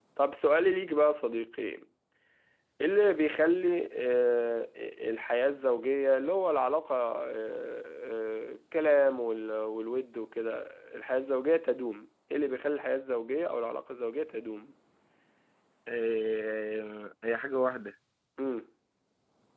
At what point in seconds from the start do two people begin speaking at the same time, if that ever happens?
none

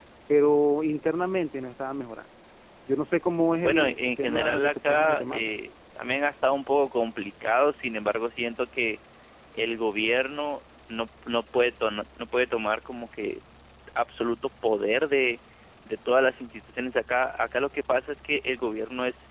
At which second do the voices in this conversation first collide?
3.6 s

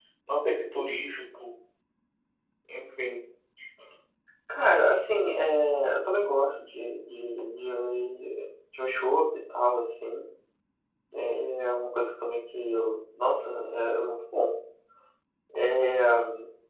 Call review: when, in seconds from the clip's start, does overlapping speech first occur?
none

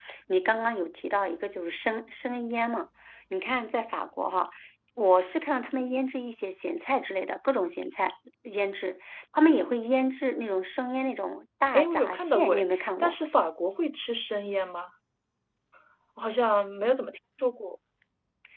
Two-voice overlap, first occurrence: 11.7 s

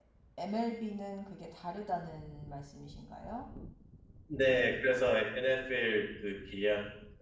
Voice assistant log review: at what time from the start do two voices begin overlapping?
none

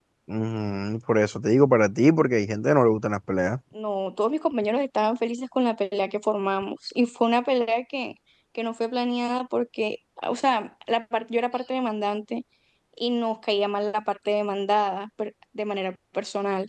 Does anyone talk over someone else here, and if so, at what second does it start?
none

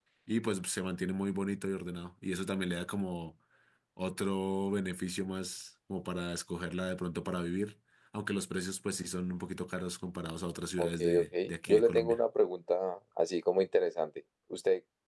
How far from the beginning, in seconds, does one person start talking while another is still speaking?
10.8 s

